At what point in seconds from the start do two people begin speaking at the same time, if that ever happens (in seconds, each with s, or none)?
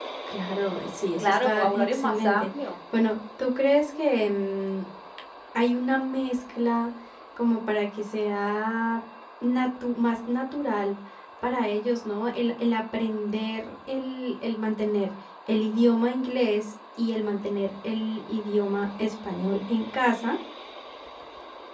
1.2 s